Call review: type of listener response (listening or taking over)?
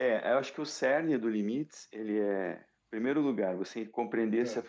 listening